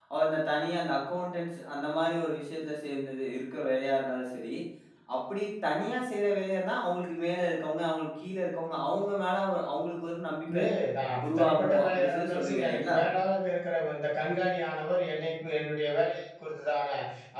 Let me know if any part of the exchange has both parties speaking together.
Yes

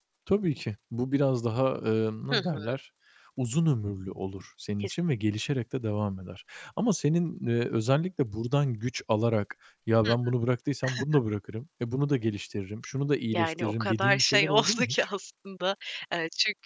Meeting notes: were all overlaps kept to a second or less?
No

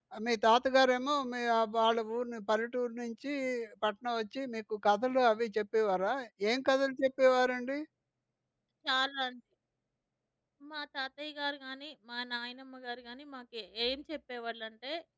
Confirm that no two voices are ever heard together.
Yes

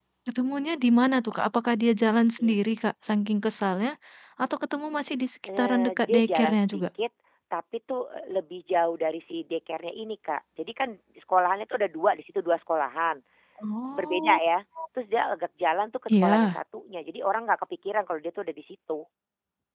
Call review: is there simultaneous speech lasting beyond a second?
Yes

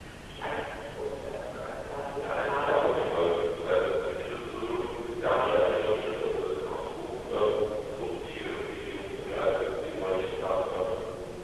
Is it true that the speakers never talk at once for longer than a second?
No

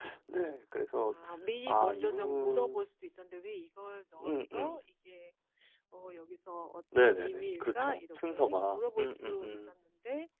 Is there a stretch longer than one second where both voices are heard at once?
Yes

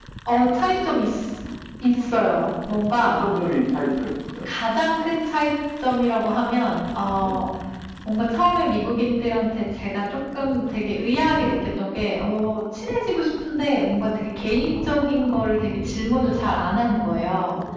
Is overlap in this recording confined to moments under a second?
Yes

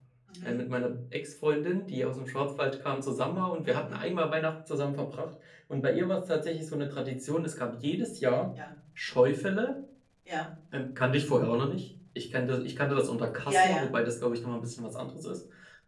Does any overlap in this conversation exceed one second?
No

